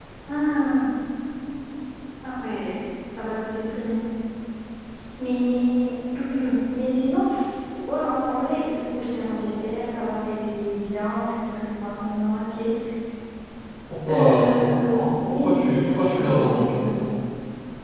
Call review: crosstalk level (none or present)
present